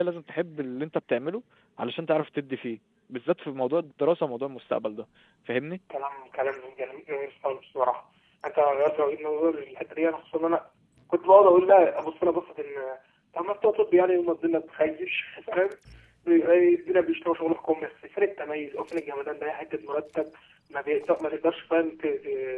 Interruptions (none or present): none